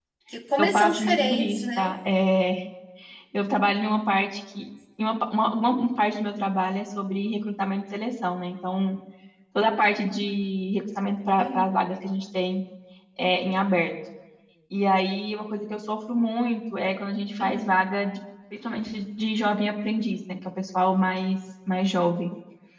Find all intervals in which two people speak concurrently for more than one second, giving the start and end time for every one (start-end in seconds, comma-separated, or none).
0.6-1.9